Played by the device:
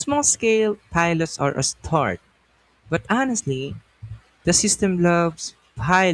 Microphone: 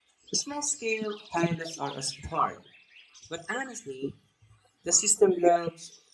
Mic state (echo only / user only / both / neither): echo only